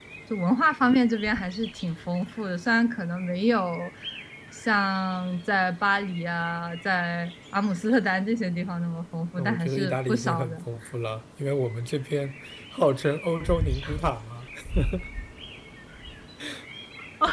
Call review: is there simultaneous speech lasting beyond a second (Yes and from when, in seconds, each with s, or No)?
Yes, from 9.4 s